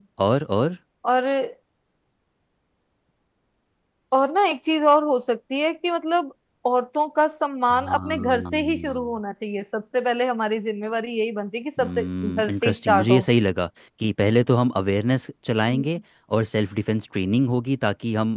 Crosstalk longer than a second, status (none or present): present